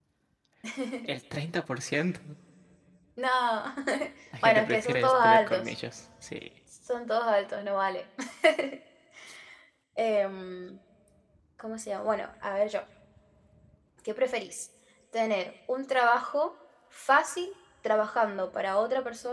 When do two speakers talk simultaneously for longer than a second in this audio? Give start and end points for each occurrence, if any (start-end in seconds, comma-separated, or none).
4.4-5.7